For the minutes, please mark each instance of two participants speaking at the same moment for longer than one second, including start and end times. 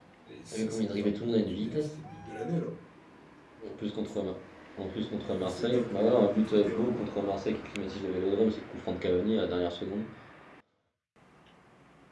0.5-1.9, 5.3-6.9

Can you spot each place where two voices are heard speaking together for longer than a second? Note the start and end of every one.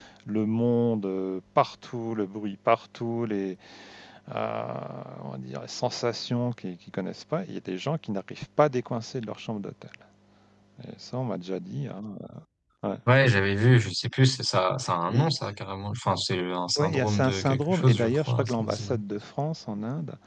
16.8-18.9

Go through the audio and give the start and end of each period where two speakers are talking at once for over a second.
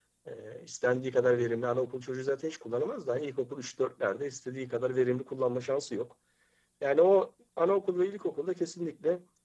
none

